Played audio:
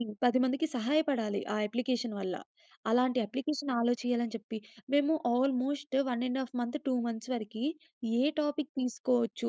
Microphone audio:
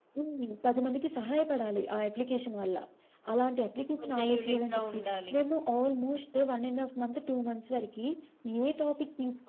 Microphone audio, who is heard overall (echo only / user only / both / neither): both